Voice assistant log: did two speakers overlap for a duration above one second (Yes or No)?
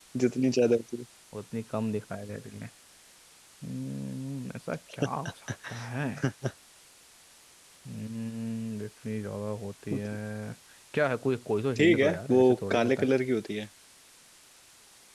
Yes